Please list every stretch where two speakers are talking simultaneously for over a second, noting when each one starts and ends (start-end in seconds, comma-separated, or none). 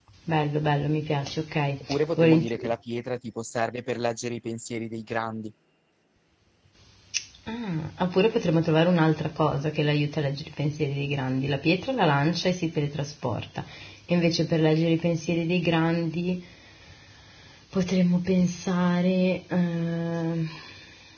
none